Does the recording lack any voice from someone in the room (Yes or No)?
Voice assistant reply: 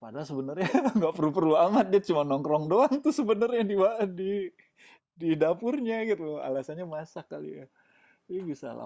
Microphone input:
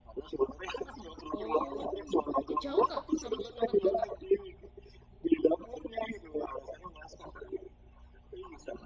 No